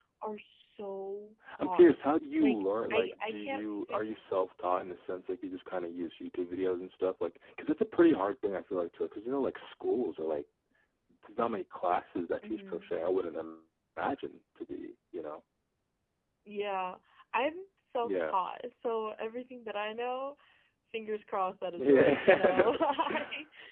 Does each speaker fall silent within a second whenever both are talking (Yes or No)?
No